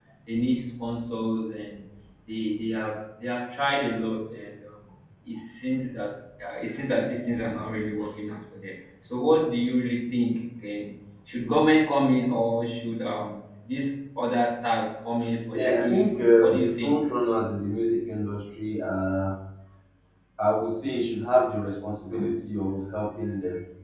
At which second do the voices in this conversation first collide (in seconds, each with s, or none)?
15.5 s